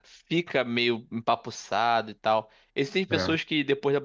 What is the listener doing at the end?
listening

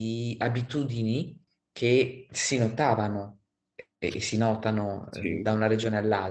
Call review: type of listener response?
listening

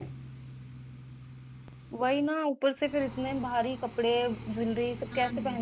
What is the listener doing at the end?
listening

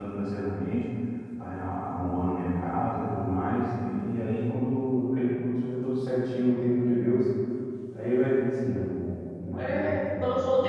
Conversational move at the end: taking over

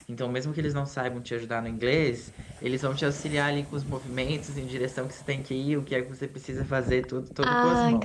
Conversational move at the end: taking over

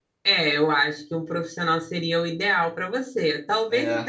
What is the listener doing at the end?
listening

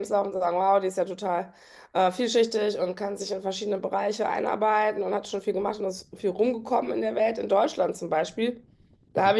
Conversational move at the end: listening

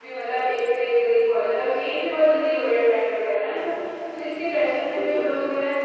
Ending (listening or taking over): listening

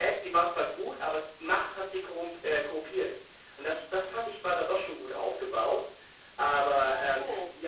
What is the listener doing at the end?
taking over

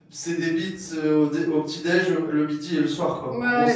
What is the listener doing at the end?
taking over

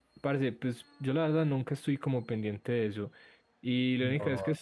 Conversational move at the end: listening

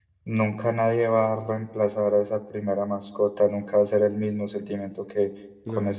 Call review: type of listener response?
listening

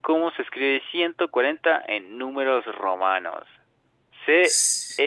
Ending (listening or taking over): listening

